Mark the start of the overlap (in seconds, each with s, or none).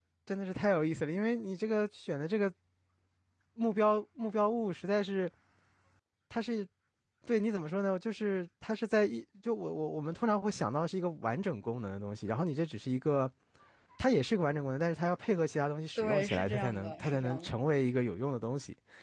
16.0 s